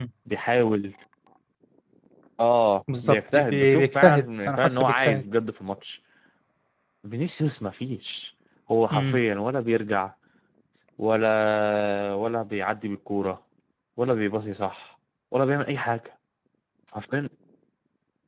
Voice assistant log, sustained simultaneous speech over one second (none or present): present